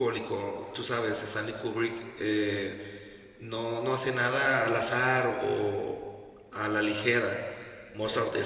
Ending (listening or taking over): listening